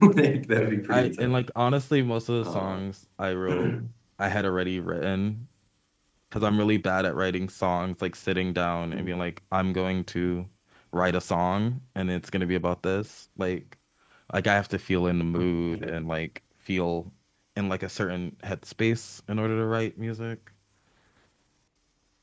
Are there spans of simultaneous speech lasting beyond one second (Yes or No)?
No